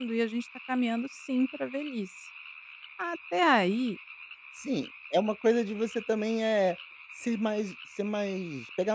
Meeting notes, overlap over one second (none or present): none